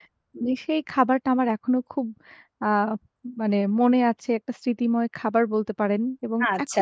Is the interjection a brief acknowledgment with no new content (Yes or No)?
No